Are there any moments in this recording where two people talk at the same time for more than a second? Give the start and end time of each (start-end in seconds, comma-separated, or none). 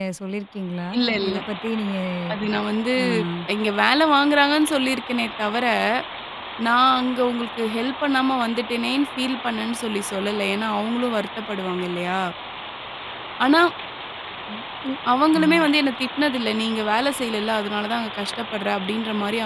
none